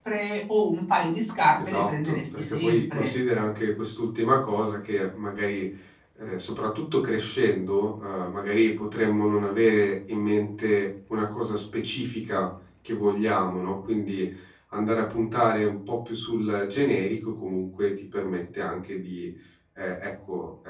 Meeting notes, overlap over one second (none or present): present